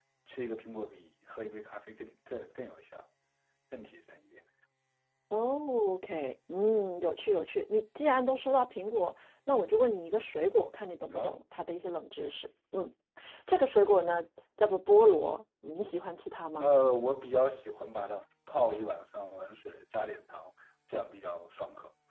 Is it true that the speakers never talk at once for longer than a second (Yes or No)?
Yes